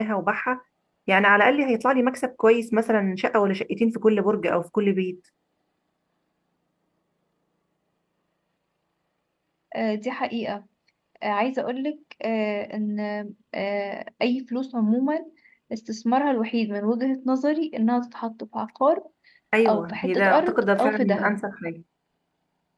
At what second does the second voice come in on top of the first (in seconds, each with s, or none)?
19.7 s